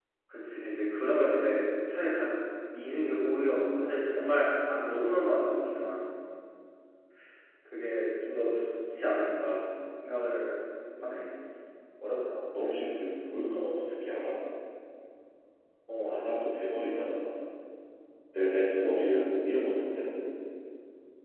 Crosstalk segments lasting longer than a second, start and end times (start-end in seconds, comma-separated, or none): none